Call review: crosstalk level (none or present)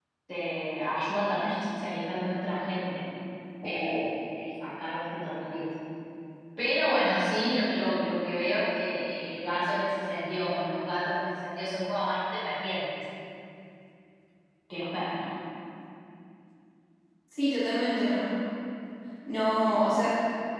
none